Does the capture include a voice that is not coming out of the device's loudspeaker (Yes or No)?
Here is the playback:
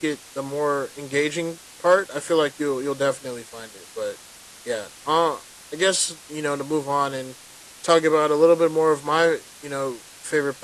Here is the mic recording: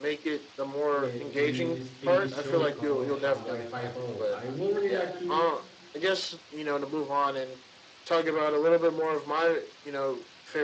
Yes